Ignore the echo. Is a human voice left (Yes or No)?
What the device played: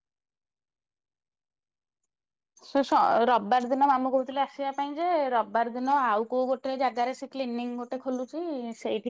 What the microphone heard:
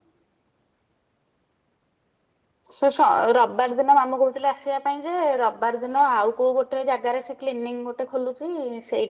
No